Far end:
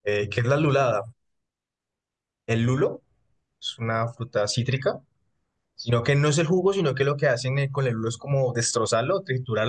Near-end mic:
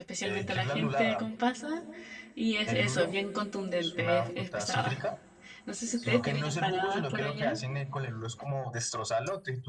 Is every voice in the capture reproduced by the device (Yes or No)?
No